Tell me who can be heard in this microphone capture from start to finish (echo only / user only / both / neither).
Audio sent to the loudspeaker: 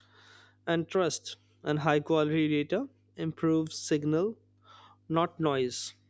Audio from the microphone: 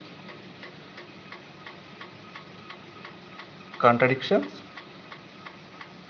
user only